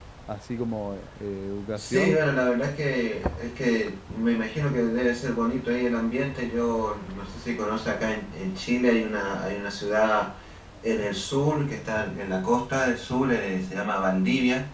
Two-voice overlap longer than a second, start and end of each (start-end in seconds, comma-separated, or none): none